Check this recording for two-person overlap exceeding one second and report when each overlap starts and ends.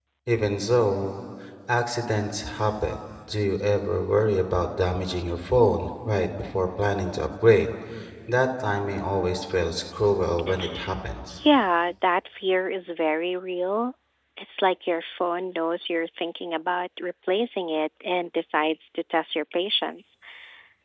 none

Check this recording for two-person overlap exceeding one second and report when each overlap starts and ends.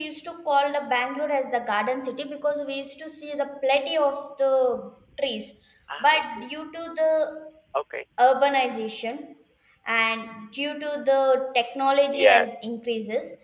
none

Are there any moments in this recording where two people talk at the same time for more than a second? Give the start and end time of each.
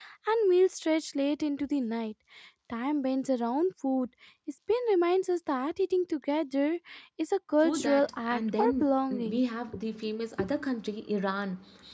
7.6-9.4

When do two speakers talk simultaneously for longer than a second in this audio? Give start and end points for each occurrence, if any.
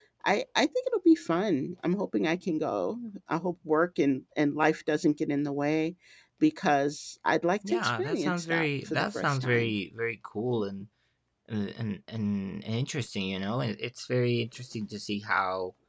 7.7-9.7

